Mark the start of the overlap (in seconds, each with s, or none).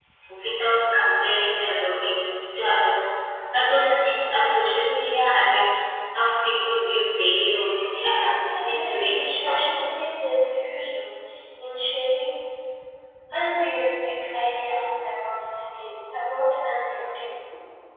7.8 s